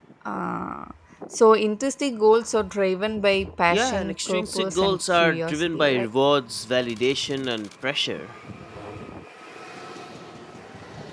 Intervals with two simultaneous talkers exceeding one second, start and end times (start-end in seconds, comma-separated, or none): 3.7-6.1